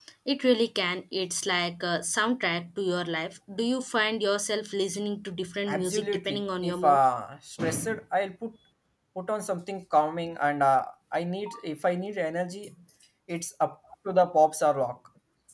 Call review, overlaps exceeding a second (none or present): present